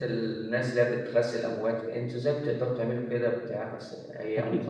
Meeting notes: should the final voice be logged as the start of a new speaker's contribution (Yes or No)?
Yes